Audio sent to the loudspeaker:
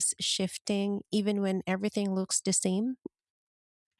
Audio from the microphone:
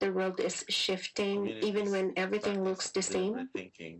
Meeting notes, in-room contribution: present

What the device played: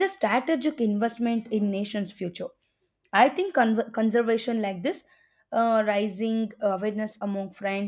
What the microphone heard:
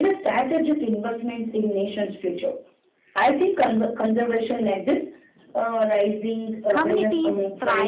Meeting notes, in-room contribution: present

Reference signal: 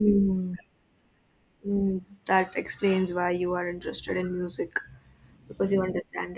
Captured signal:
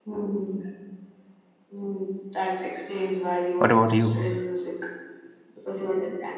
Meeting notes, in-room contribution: present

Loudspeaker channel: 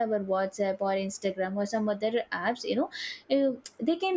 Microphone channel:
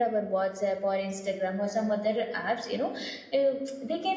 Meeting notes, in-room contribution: none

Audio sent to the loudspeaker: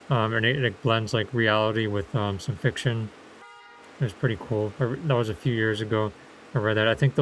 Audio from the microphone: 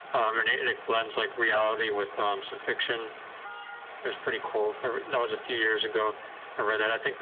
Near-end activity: none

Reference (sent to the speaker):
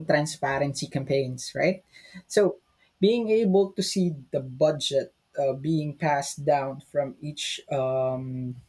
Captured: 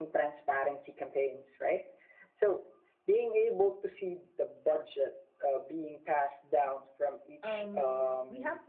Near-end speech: present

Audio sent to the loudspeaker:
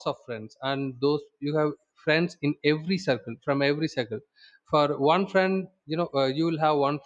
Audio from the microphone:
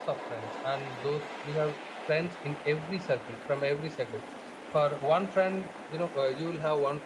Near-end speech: none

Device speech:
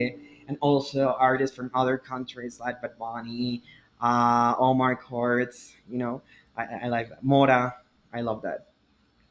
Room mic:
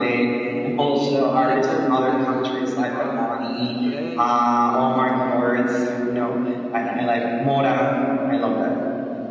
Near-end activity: present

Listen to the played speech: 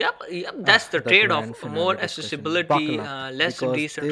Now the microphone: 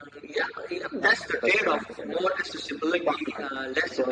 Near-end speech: none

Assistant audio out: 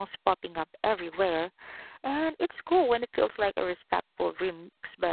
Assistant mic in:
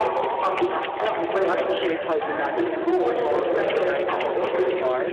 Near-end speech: present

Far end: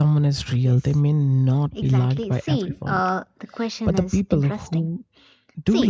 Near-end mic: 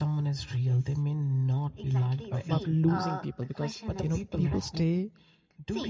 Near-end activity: present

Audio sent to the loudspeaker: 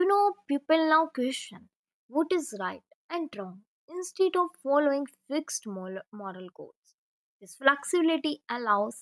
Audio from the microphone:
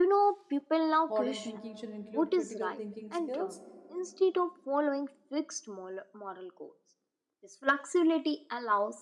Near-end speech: present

